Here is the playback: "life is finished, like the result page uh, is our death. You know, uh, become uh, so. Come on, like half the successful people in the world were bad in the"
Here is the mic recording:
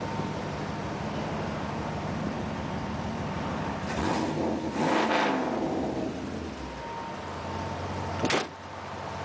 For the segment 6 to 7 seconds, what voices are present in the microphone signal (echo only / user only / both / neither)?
neither